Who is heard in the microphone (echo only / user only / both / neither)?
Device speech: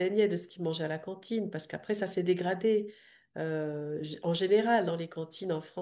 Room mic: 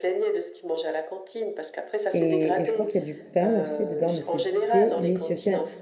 both